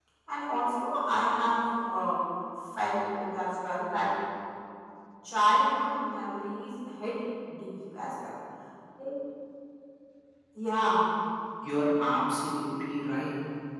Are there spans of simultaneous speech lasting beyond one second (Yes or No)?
No